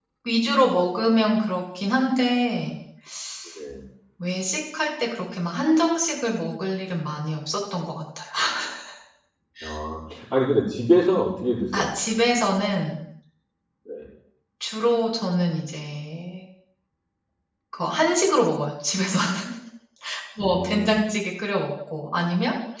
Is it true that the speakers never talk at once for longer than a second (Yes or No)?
Yes